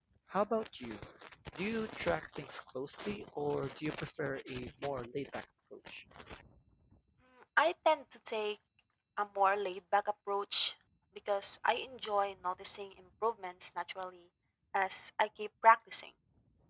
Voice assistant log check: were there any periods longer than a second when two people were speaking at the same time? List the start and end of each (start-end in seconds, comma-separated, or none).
none